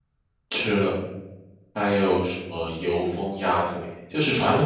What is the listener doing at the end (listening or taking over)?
listening